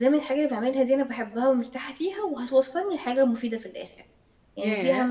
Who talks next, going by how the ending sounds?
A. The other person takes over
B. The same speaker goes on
A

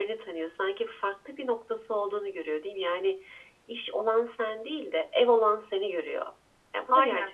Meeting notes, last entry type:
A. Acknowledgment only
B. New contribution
B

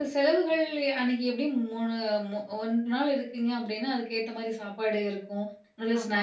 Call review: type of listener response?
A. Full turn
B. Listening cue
B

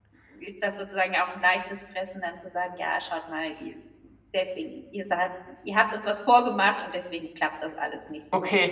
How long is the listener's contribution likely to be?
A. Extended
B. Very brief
A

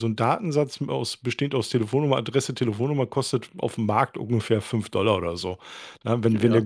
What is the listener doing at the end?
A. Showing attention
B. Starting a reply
A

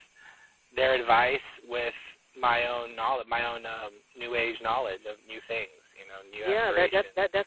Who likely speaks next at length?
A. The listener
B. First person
A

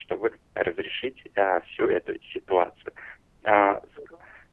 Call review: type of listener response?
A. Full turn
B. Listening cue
B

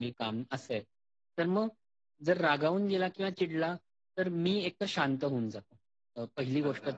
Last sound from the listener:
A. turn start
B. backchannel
B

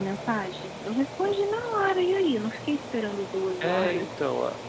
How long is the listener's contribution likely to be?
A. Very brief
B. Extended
B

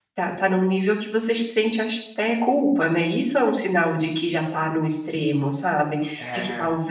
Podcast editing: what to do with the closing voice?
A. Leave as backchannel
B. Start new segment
A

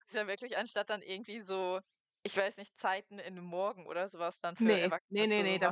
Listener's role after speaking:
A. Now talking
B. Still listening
A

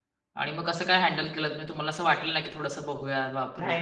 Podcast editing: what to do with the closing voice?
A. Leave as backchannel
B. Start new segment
B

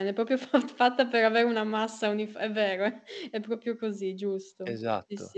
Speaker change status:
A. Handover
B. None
A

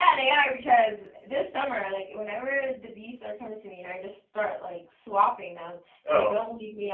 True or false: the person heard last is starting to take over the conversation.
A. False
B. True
A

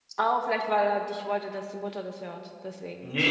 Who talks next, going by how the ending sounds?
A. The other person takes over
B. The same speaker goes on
A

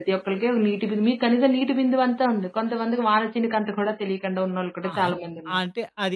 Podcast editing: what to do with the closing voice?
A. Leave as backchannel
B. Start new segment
B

